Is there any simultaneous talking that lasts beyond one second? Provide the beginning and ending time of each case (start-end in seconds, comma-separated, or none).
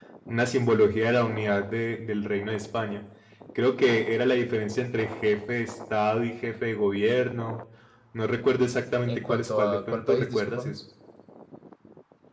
9.1-10.7